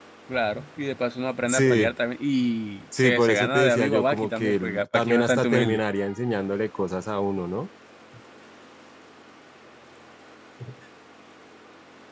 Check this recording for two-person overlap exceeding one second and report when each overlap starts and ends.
2.9-5.8

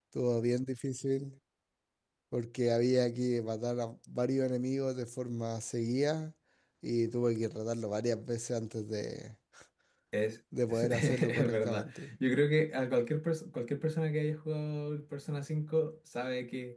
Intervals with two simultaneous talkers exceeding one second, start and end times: 10.7-12.1

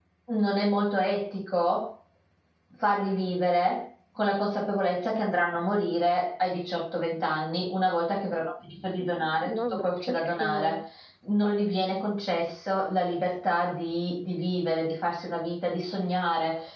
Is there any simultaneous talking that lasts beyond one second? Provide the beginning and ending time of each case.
9.4-10.8

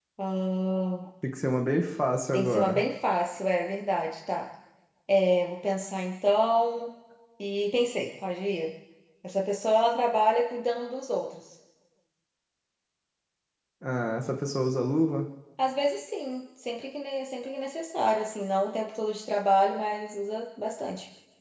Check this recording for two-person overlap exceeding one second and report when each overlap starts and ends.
none

